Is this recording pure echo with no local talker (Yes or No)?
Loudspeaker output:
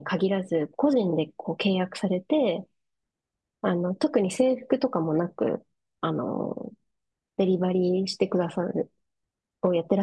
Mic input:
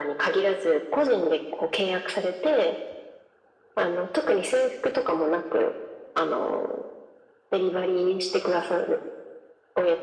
Yes